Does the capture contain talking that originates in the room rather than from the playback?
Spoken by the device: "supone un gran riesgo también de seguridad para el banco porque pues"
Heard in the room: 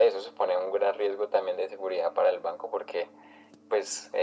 No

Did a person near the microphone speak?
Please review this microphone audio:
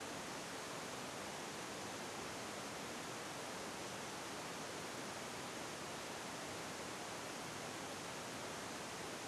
No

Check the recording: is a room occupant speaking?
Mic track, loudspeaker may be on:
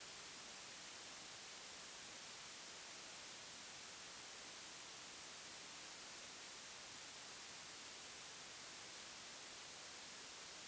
No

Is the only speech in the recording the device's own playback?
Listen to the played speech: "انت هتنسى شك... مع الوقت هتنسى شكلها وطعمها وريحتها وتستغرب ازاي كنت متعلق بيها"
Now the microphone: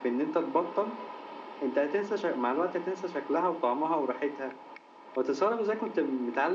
Yes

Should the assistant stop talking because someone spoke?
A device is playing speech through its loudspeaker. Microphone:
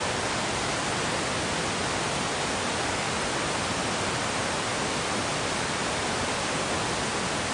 No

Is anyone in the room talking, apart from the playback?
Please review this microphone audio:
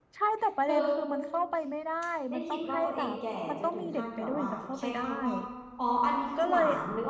Yes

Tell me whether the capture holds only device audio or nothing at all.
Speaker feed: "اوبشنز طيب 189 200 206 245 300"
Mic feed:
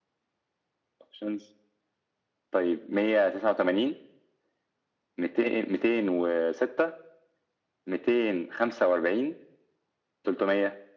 Yes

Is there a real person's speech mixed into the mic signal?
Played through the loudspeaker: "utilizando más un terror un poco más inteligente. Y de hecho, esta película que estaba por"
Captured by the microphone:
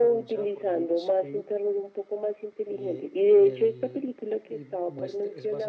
Yes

